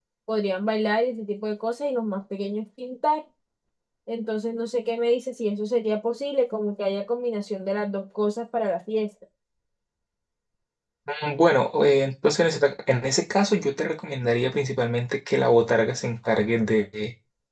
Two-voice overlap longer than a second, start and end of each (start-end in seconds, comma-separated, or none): none